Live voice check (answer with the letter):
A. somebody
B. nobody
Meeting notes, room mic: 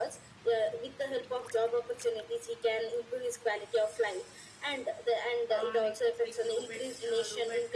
A